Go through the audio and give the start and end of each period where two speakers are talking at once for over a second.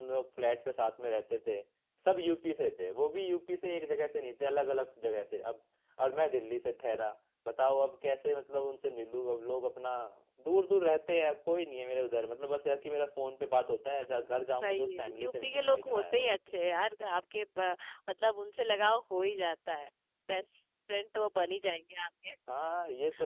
14.6-16.3

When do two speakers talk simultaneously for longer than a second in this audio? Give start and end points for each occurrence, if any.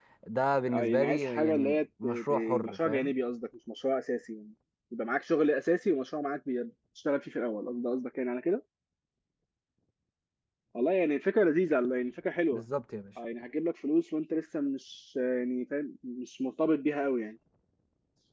0.7-3.1

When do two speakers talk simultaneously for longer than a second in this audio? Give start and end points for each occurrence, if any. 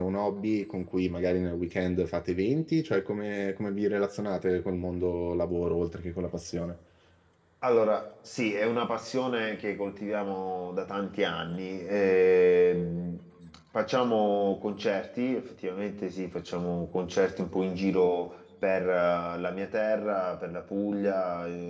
none

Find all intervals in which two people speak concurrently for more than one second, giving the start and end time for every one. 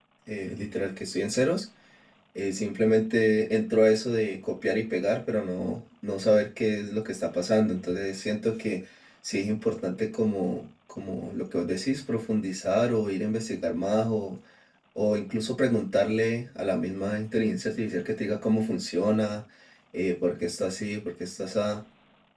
none

